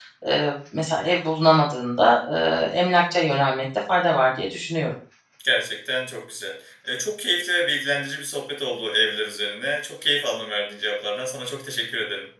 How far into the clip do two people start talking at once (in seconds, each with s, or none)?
none